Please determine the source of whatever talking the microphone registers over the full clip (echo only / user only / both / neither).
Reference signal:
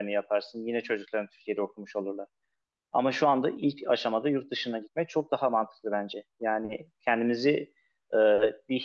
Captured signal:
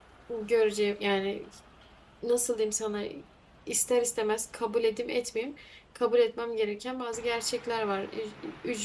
user only